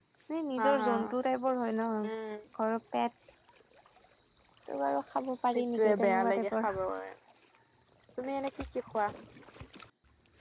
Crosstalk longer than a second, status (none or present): present